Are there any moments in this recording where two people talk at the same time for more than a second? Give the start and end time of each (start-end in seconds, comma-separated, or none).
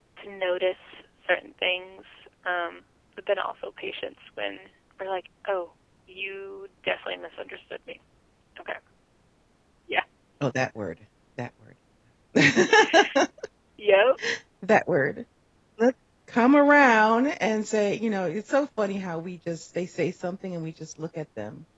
none